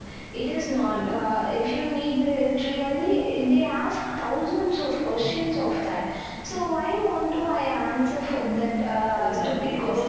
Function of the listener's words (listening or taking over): taking over